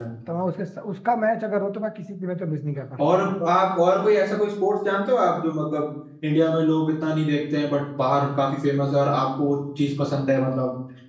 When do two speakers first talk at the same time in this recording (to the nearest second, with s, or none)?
none